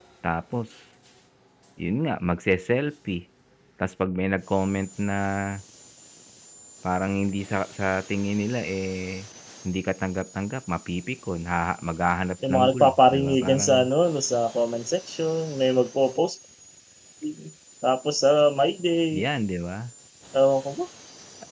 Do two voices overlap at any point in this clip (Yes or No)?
Yes